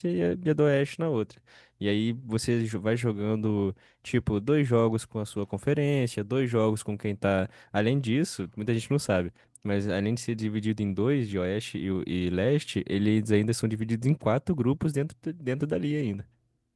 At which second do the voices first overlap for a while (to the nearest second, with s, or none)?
none